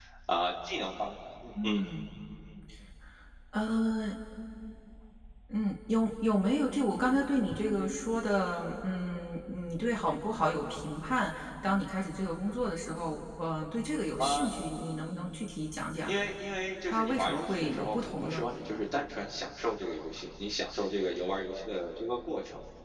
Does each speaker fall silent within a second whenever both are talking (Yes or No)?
No